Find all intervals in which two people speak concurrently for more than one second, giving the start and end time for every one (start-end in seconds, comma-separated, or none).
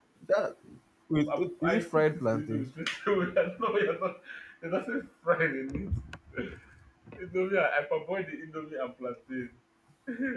1.3-2.7